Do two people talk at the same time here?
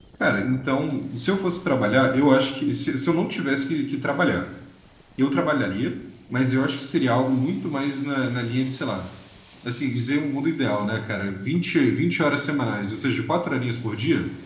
No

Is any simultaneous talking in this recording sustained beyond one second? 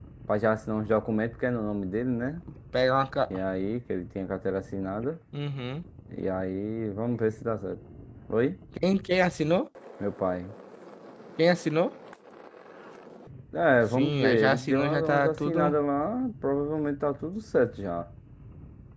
Yes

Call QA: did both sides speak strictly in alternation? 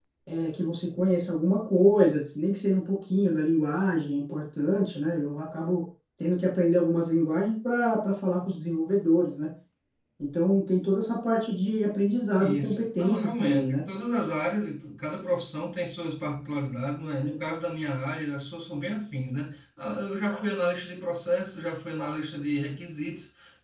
No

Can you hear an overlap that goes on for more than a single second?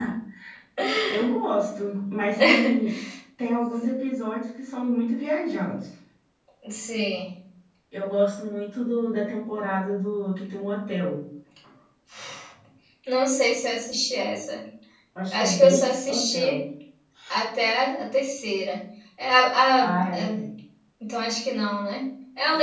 Yes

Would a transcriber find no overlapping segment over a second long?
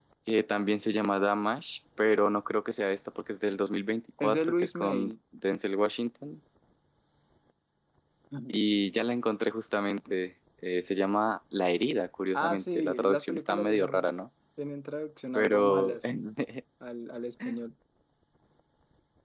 No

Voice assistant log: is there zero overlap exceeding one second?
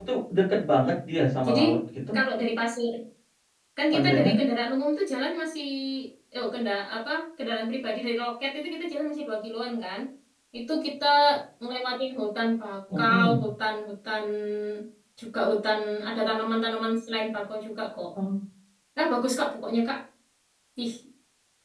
Yes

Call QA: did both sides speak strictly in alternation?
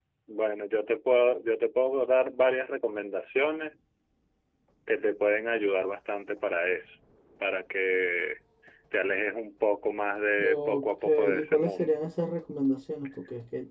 No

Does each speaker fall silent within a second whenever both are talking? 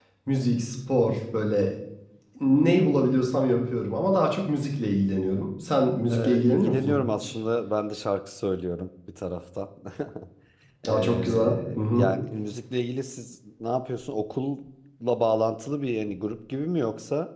No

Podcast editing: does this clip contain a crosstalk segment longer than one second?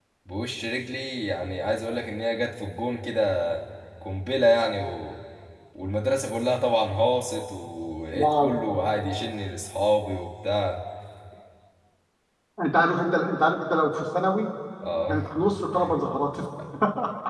No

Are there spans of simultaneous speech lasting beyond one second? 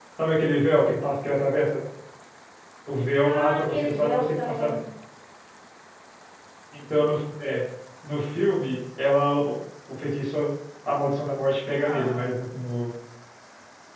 Yes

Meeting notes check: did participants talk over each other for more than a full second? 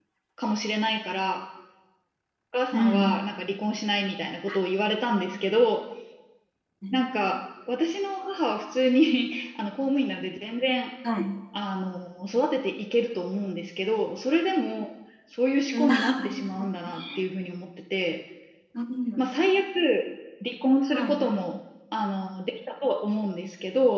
Yes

